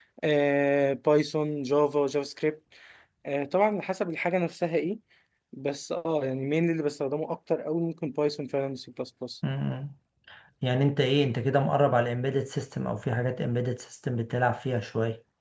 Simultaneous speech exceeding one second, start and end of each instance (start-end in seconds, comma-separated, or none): none